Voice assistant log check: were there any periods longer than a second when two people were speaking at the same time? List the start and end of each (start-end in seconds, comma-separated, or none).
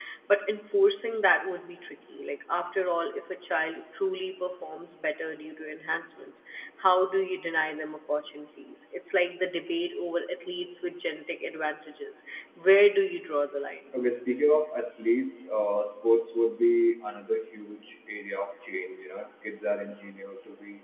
none